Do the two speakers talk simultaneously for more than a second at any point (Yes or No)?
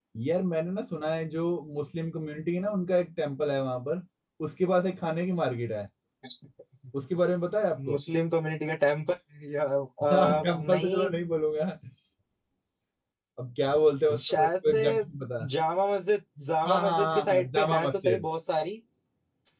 Yes